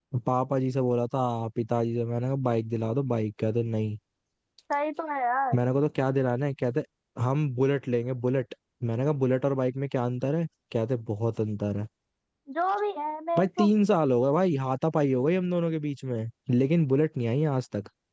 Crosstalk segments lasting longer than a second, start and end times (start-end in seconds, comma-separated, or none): none